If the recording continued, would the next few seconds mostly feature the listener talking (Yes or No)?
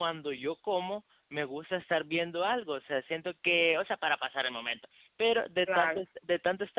No